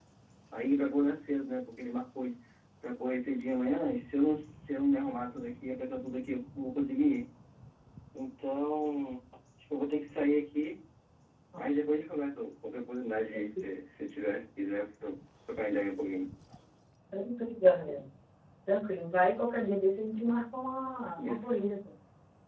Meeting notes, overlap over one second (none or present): none